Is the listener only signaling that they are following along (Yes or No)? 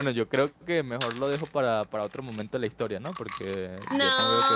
No